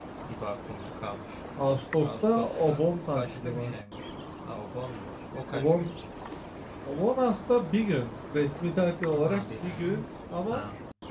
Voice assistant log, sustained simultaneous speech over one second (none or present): present